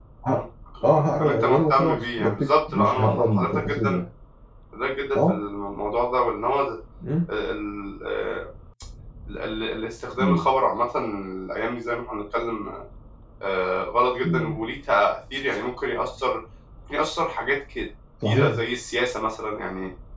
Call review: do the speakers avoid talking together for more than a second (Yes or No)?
No